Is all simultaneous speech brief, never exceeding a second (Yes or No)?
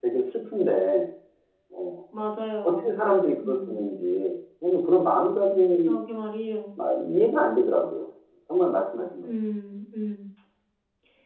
Yes